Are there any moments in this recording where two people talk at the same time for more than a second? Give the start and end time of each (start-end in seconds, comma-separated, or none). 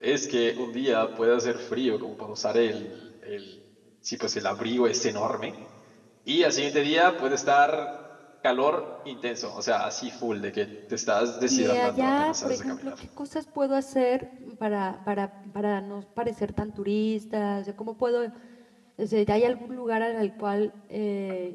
11.5-12.9